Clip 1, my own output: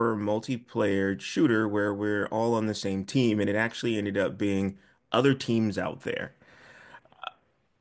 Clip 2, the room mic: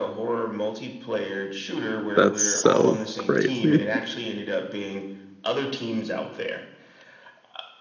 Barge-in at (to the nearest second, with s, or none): 2 s